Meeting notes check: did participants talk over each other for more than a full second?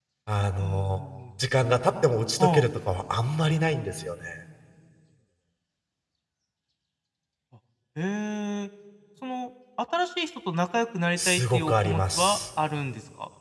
Yes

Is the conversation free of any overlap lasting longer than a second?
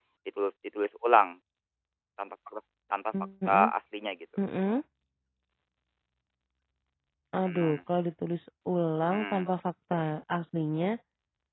Yes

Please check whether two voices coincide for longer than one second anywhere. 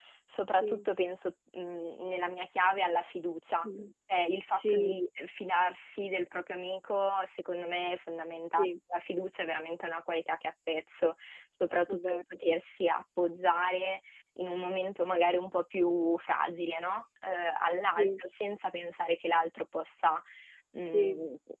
No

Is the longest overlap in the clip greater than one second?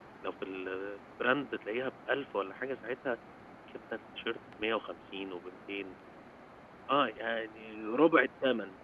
No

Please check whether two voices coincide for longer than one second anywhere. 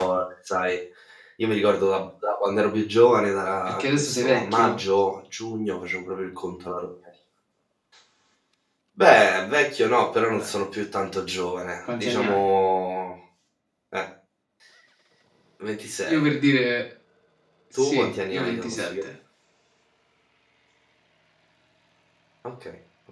Yes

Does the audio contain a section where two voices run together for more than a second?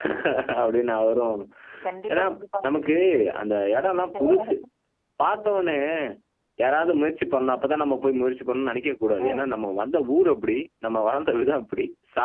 No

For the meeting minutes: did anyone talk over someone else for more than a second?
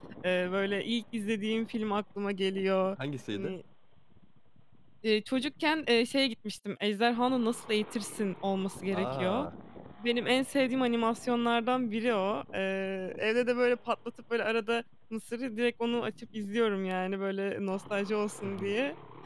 No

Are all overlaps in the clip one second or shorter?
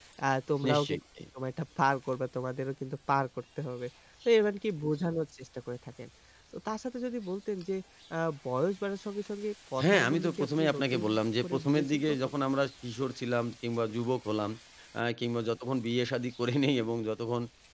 No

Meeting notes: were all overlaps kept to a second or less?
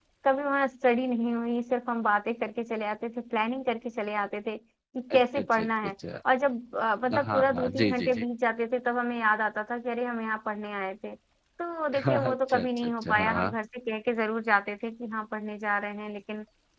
No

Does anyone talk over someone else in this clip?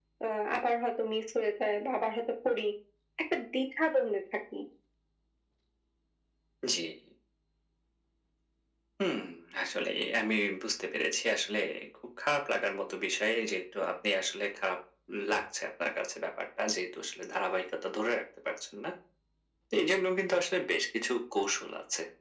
No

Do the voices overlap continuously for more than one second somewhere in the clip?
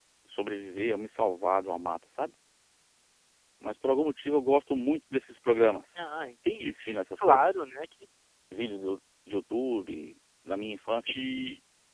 No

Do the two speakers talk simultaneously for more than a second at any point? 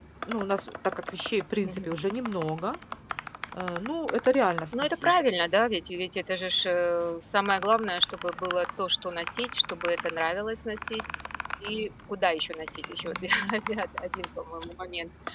No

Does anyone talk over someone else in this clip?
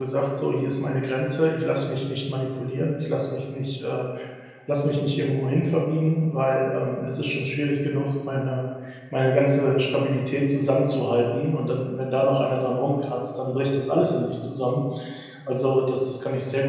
No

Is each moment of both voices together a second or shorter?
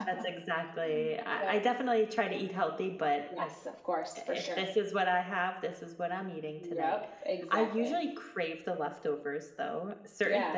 Yes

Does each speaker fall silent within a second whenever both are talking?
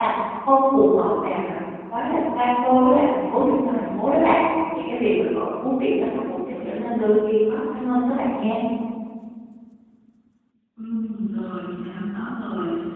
Yes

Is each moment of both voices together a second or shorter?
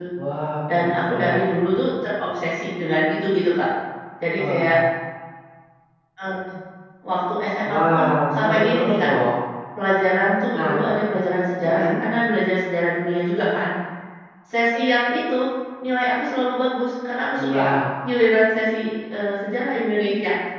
No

